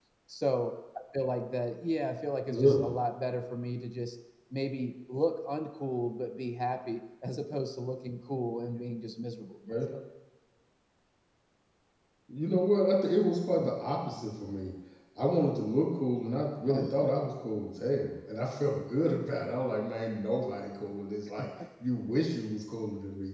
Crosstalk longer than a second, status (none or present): none